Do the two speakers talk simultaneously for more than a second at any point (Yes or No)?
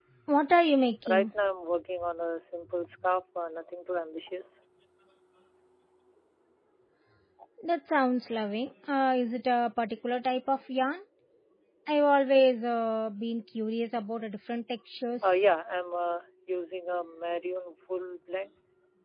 No